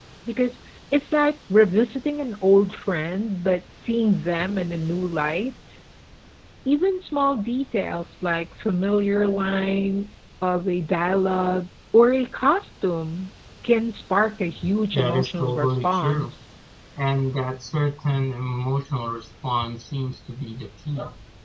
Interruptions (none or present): present